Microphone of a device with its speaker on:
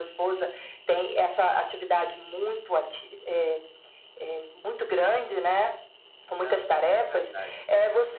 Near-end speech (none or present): present